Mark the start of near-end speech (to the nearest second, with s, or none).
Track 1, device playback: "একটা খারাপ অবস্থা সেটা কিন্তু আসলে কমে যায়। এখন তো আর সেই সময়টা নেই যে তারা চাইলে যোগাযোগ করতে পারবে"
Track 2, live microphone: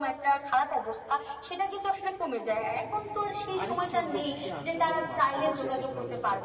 4 s